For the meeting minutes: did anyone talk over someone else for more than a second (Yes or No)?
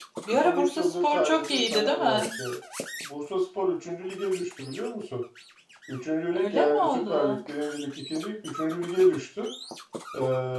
Yes